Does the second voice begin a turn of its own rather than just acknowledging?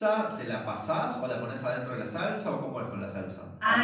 Yes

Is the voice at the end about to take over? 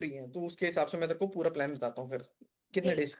Yes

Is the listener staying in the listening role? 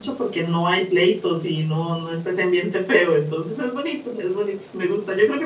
Yes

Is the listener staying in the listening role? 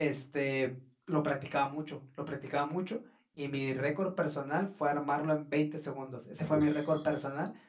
Yes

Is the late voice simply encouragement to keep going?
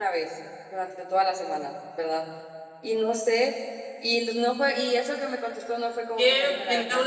No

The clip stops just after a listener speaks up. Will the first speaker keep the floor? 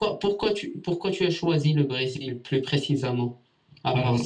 No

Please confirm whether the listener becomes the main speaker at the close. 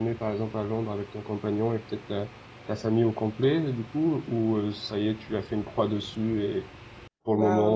No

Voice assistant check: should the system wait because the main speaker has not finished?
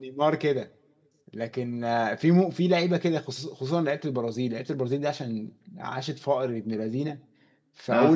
Yes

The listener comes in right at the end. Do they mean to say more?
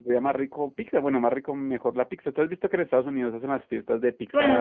Yes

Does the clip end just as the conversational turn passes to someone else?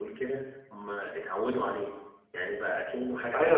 Yes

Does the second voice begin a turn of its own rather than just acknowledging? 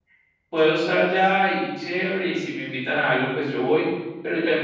No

